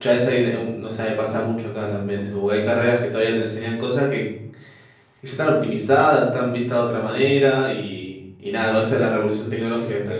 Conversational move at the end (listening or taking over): listening